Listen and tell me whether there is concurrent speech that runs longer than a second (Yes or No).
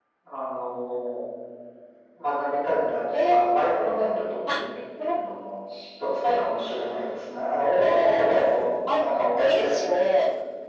Yes